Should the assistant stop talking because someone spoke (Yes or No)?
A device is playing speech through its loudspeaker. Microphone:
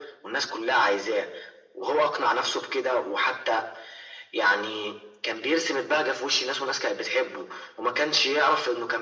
No